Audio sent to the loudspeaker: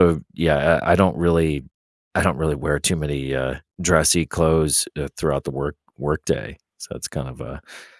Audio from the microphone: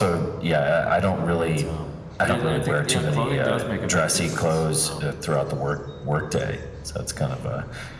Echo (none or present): present